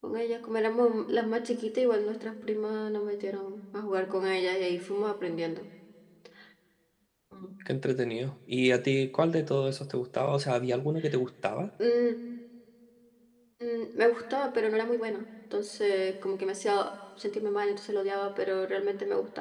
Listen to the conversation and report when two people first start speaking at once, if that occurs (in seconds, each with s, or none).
none